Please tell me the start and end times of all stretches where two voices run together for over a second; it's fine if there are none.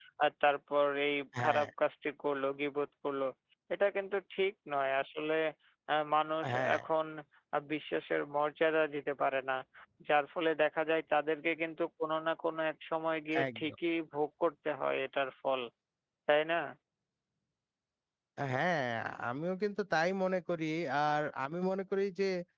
none

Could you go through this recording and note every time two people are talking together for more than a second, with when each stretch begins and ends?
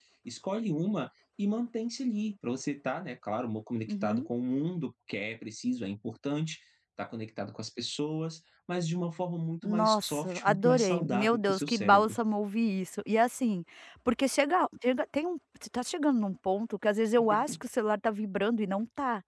9.6-12.2

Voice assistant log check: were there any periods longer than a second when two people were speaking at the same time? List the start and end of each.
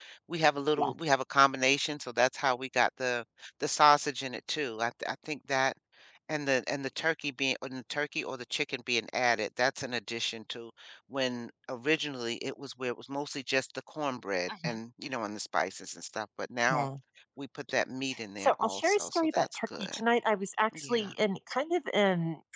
18.4-20.0

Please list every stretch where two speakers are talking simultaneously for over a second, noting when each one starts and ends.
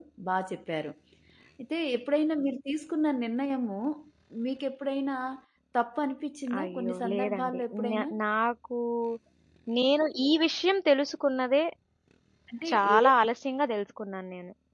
6.6-8.1

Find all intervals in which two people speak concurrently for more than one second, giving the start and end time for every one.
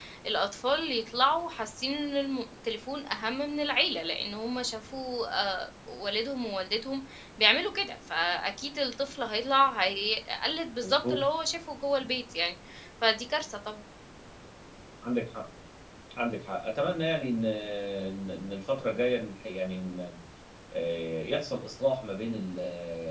none

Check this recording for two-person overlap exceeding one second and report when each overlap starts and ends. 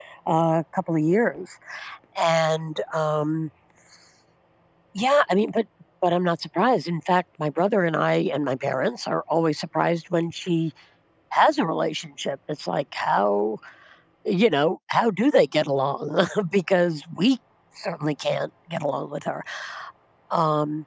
none

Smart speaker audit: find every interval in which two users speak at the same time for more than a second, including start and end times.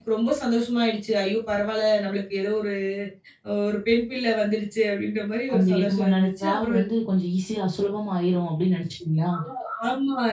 5.5-6.8

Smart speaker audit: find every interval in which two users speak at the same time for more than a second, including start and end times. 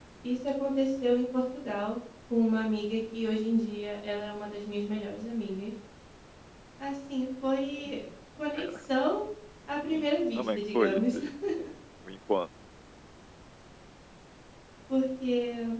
9.7-11.2

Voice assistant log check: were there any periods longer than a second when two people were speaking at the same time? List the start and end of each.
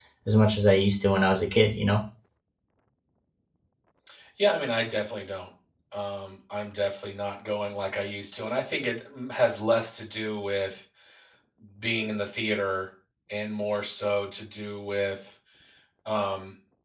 none

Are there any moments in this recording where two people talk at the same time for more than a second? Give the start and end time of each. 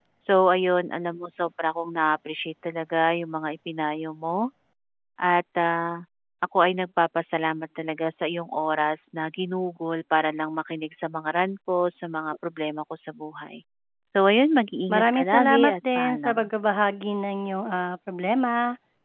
14.9-16.5

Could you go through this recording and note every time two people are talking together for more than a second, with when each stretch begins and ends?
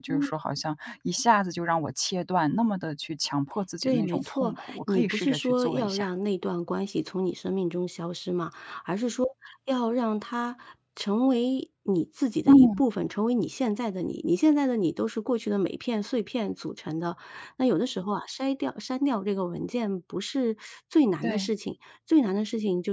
3.8-6.1

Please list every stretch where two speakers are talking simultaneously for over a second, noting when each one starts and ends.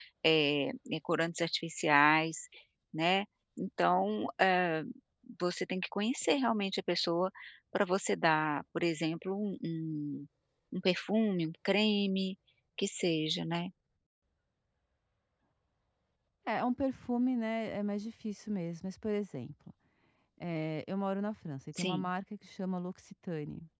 none

